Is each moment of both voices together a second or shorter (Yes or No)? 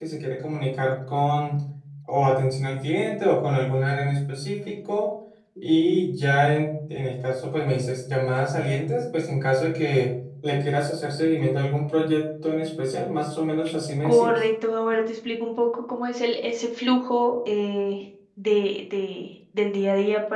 Yes